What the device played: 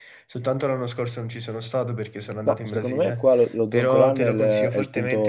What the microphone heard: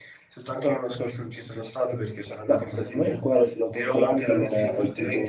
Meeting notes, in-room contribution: none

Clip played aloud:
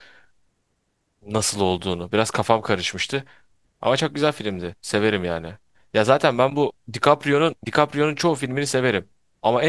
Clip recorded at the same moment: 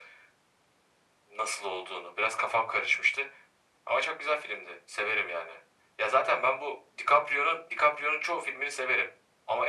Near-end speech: none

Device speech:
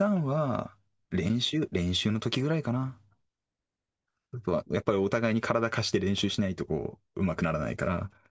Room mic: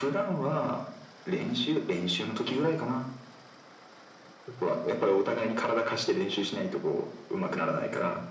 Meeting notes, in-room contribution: none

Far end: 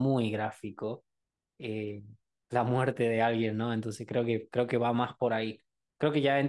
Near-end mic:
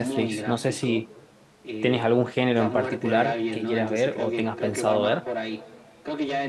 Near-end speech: present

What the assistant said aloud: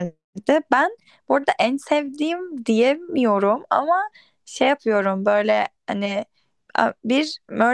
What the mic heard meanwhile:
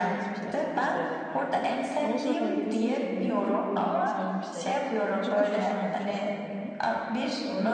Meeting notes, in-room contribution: present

